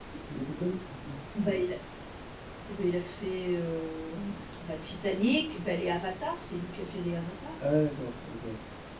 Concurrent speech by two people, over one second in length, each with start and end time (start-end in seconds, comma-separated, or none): none